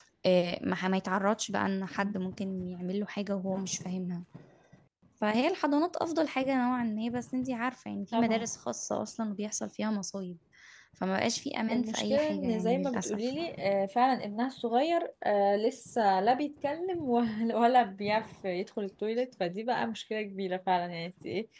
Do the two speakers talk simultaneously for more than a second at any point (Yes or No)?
Yes